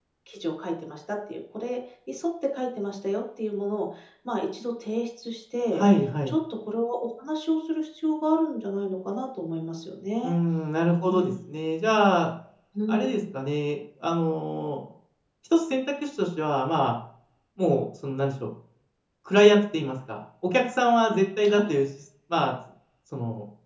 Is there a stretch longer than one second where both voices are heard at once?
No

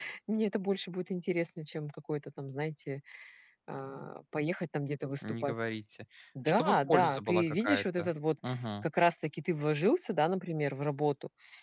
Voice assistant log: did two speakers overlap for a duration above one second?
Yes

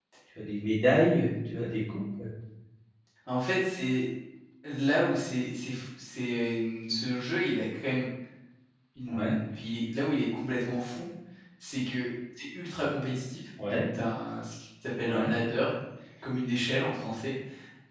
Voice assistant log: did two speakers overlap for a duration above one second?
No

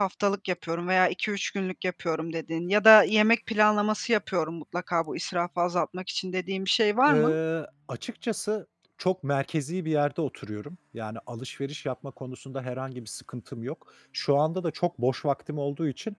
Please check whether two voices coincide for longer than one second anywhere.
No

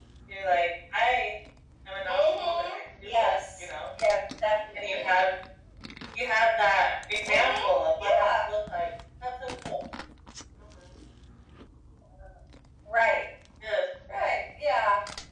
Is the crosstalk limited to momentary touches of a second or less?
No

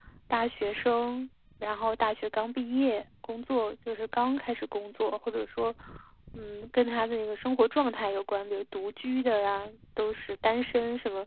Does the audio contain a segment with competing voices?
No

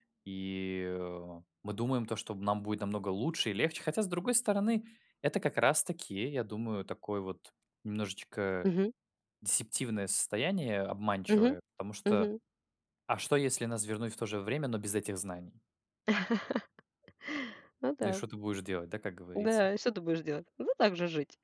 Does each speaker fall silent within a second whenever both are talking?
Yes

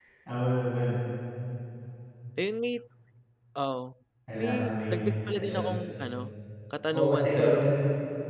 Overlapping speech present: Yes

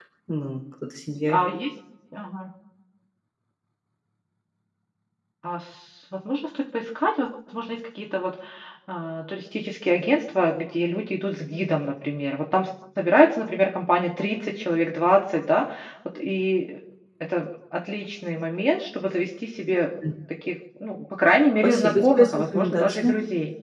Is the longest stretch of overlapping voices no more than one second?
No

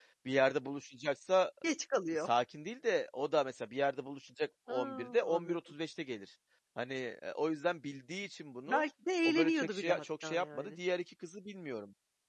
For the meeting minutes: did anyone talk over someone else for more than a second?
Yes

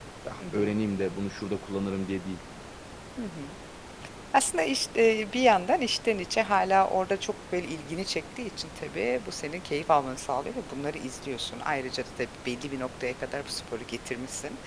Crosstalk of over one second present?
No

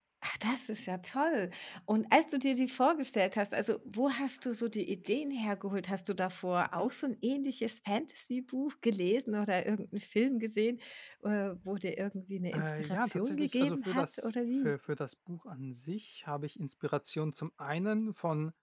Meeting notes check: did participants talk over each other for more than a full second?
Yes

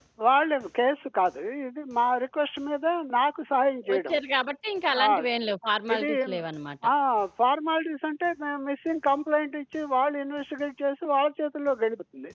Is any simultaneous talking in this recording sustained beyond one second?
No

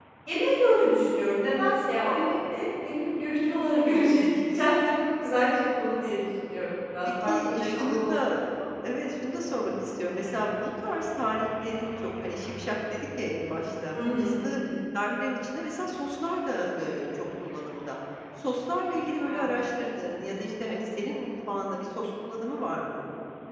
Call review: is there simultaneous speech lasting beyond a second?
Yes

